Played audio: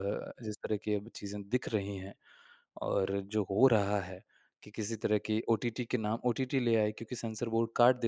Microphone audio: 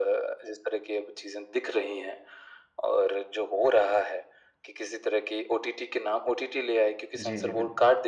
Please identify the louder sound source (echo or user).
echo